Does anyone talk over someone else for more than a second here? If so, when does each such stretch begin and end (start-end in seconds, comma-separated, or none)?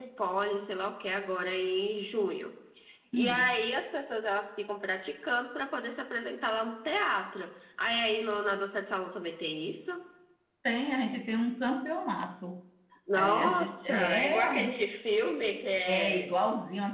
13.1-14.8